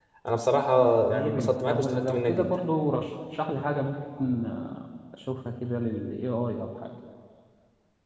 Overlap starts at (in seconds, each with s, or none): 1.1 s